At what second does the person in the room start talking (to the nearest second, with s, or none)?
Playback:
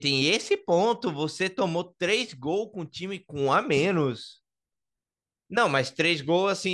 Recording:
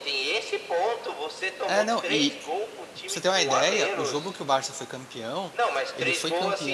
2 s